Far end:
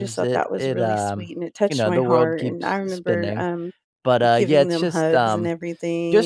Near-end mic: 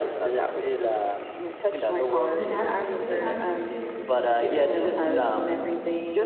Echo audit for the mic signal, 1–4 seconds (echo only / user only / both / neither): both